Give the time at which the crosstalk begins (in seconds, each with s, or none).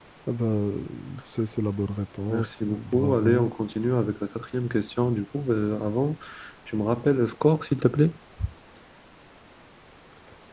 2.3 s